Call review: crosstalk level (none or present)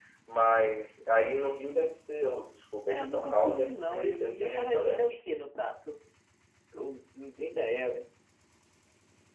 present